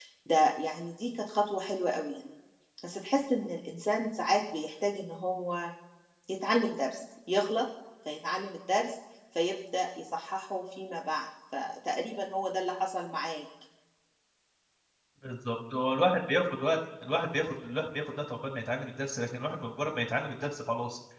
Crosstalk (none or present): none